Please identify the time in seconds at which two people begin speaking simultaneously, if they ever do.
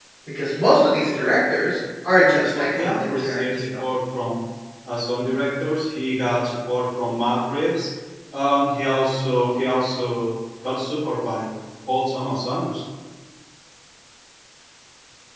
2.1 s

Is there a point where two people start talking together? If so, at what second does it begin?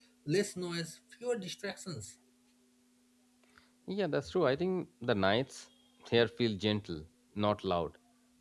none

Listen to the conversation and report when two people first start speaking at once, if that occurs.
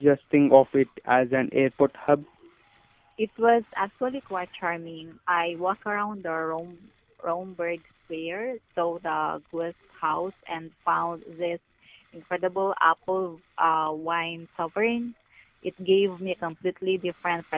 none

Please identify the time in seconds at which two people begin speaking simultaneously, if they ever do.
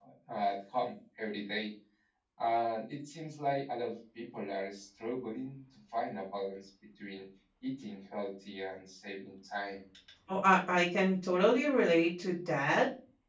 none

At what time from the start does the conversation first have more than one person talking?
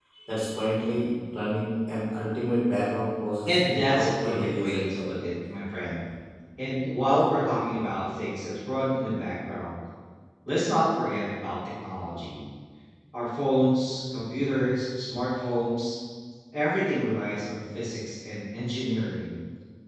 3.5 s

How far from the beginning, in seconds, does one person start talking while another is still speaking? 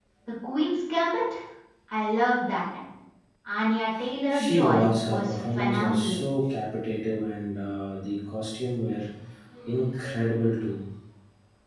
4.3 s

